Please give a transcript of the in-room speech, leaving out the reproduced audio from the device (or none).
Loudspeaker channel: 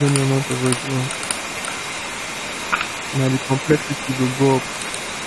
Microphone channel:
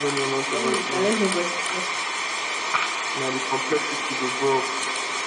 Anyway, shall let's move on to the next.